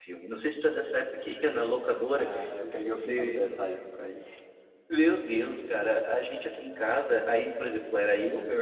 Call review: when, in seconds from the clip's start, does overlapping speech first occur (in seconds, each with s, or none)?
2.1 s